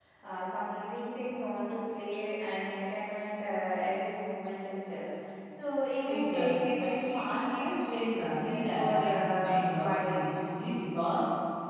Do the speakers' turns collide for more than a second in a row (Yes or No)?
Yes